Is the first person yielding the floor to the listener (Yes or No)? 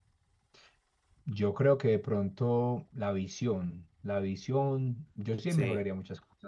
No